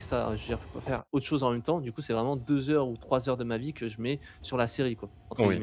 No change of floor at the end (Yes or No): No